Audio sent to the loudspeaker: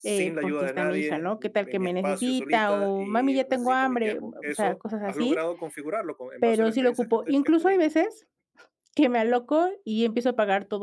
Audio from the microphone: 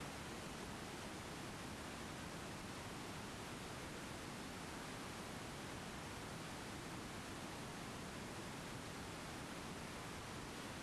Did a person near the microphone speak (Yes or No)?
No